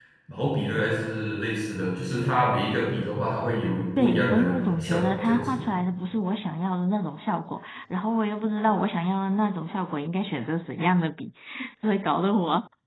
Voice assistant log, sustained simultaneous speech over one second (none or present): present